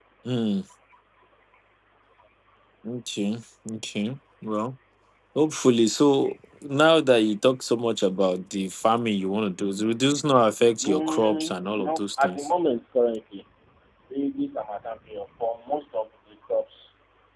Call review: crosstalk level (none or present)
present